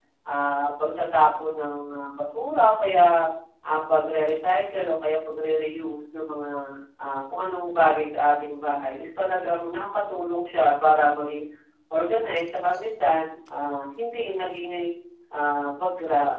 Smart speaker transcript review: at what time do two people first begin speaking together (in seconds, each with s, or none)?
none